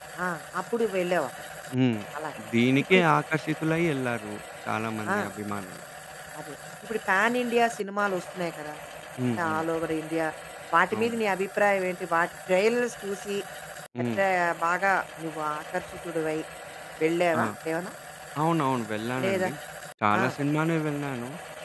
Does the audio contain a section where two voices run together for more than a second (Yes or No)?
No